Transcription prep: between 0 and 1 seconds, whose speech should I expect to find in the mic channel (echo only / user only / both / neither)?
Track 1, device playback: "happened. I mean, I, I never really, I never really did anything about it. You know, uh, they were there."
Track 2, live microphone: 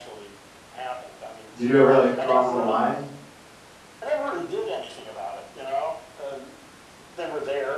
echo only